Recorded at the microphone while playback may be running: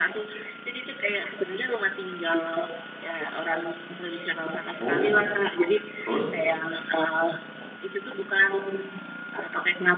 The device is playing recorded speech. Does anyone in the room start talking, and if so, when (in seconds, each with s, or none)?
4.8 s